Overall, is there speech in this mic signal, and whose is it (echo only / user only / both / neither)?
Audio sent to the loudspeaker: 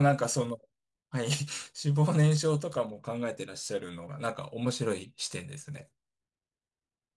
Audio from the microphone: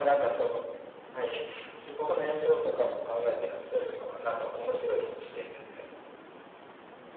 echo only